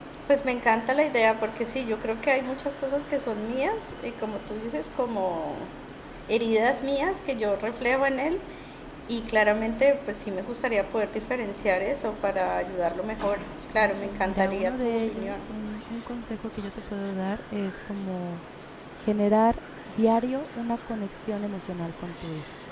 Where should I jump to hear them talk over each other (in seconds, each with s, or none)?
13.8 s